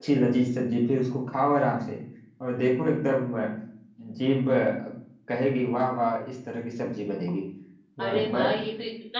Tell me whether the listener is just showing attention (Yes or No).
No